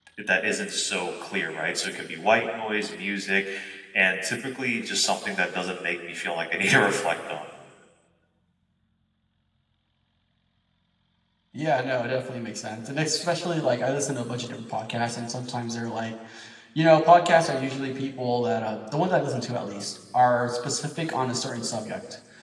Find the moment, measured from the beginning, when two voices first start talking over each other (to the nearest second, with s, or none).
none